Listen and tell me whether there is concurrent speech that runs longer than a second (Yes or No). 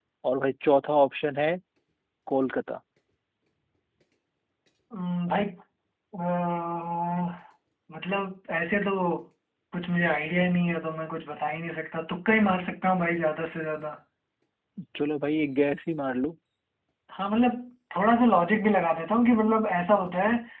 No